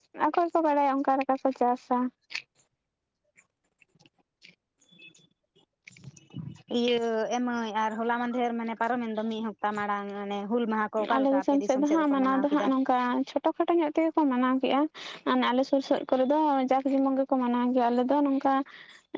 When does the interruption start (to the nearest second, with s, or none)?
11 s